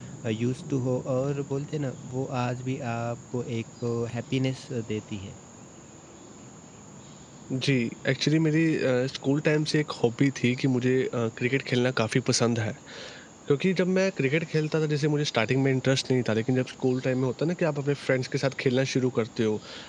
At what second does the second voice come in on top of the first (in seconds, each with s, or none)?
none